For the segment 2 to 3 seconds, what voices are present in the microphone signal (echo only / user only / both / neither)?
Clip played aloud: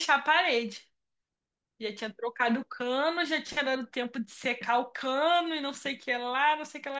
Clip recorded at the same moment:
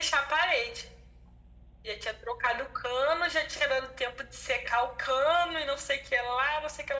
echo only